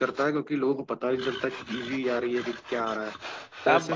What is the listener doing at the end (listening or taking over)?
taking over